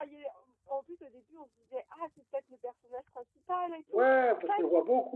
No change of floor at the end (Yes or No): No